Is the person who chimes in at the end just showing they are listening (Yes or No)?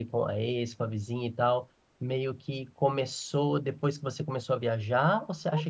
No